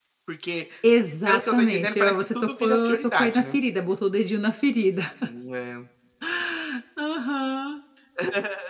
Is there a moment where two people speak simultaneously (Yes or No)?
Yes